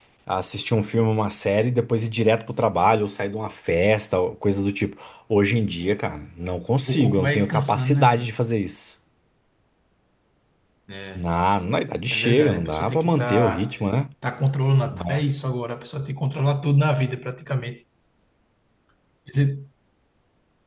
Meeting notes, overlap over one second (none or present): present